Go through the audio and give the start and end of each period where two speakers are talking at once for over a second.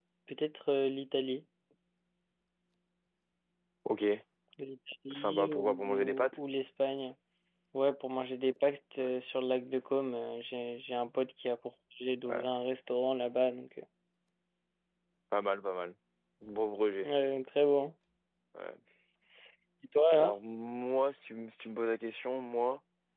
5.1-6.4

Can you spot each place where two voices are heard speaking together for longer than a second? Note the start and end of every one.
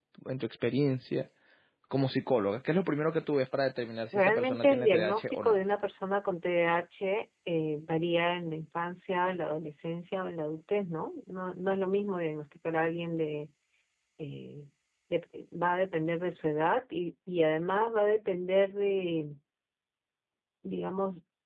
4.1-5.6

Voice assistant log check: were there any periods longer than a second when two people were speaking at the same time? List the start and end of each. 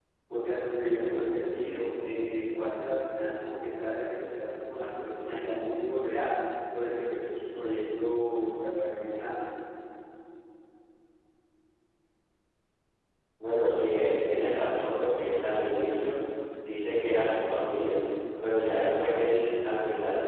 none

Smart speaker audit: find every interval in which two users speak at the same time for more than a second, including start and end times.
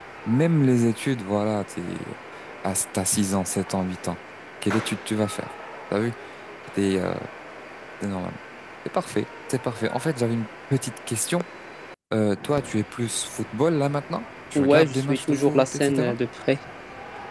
14.6-16.1

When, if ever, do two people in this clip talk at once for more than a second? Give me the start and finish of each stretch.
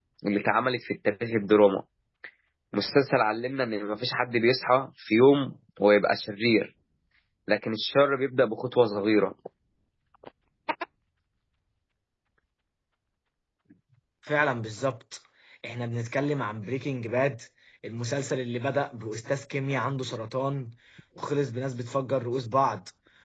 none

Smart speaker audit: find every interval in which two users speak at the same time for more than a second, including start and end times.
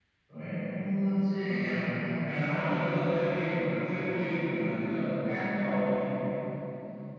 none

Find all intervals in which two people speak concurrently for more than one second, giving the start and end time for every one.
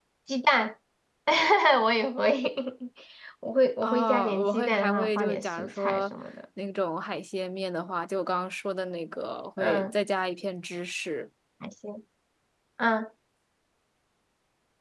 3.8-6.0

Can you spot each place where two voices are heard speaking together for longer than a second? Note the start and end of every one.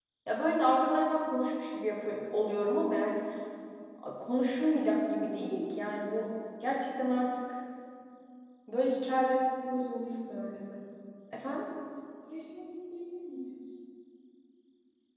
none

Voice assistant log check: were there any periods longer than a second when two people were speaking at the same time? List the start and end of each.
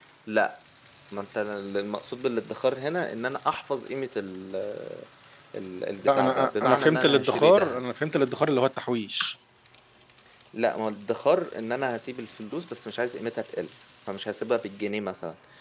6.0-7.8

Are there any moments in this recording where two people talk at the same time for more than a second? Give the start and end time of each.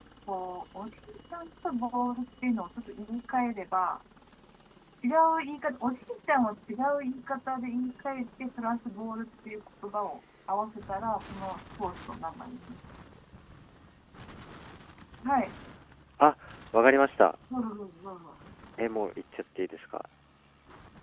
none

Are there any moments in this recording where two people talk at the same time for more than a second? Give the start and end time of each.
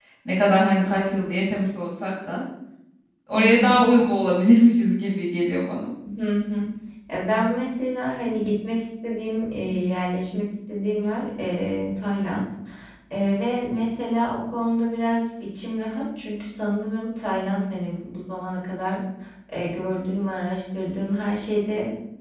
none

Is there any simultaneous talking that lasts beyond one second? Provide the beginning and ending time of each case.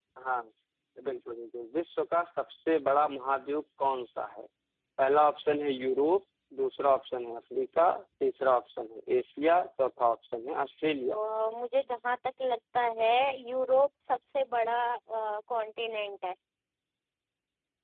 none

